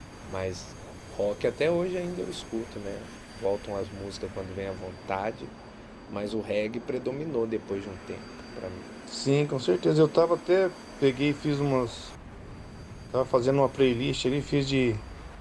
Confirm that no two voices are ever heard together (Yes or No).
Yes